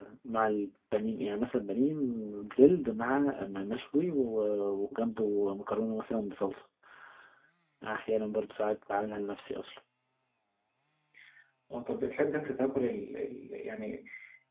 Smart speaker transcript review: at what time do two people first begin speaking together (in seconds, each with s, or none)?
none